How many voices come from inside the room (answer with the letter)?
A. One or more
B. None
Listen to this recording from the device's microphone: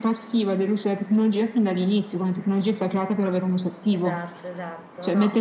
A